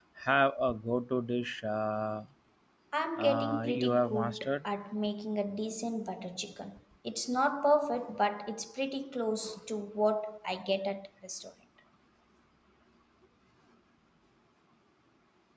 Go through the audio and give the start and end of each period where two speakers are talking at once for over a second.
3.2-4.6

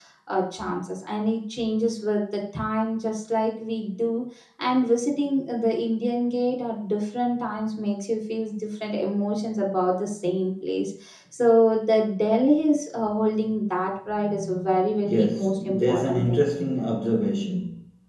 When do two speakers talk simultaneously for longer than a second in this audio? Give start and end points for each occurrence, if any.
15.0-16.4

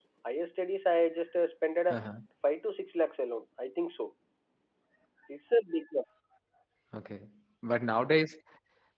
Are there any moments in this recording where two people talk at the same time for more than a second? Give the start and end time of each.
none

